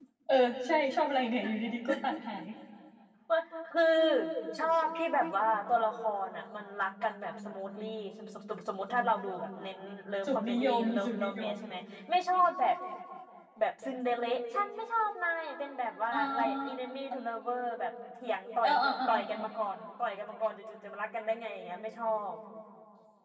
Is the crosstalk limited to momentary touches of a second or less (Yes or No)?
No